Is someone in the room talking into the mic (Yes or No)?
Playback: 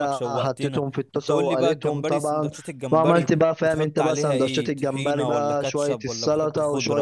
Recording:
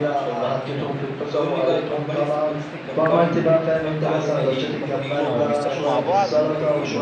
Yes